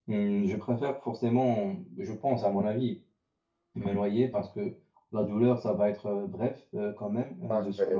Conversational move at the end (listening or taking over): taking over